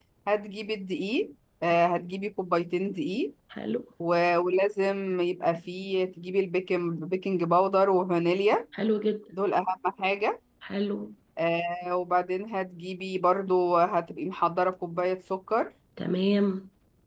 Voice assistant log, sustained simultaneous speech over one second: none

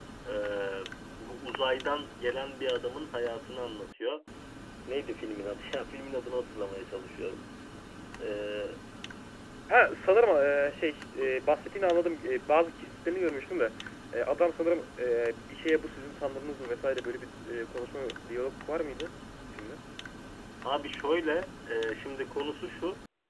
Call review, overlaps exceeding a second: none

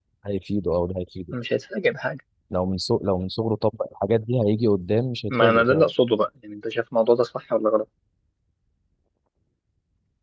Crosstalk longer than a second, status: none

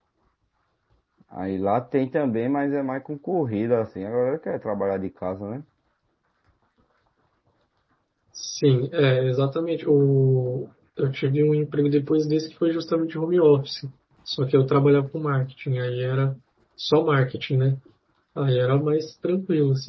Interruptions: none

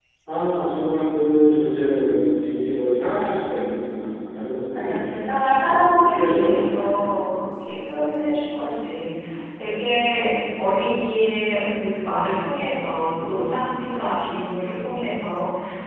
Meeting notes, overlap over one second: present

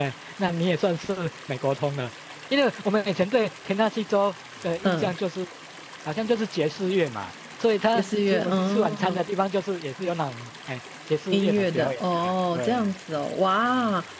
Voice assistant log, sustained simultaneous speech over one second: present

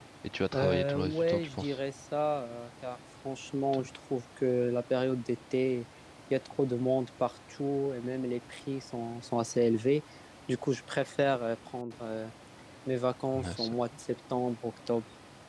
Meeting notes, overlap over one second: present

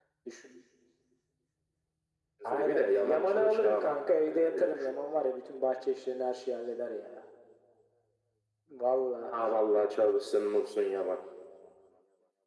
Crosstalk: present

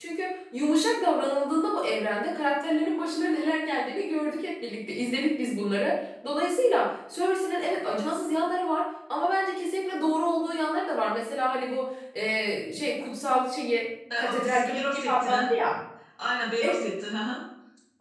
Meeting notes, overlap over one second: present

